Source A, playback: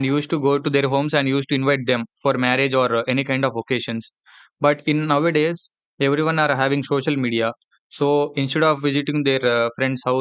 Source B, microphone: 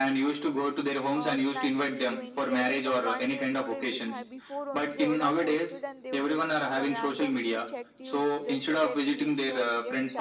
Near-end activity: present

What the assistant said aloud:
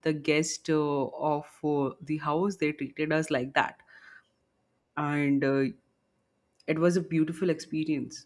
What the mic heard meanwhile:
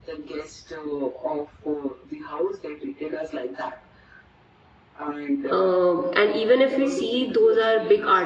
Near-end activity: present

